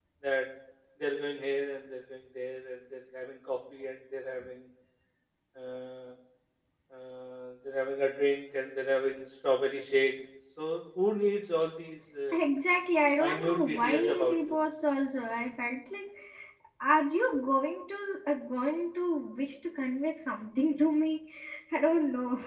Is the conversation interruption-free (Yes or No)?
No